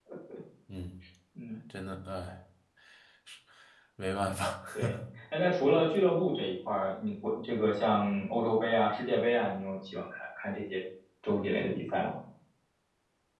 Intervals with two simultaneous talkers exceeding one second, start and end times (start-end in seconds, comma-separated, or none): none